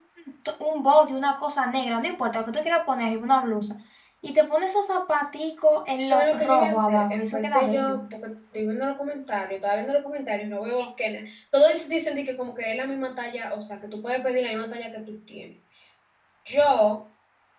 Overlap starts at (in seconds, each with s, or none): 6.0 s